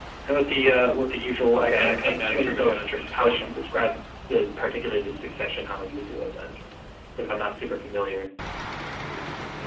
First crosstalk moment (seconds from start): 1.5 s

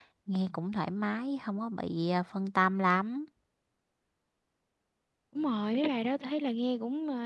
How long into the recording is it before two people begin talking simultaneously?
none

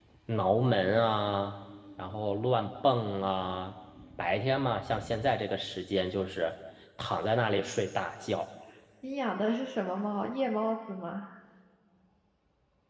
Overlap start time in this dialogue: none

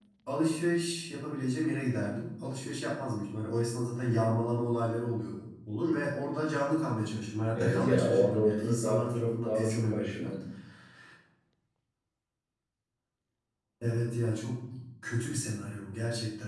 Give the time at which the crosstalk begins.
7.5 s

